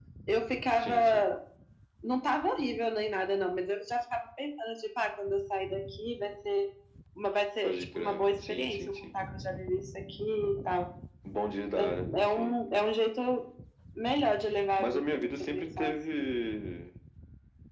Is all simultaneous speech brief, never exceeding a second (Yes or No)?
No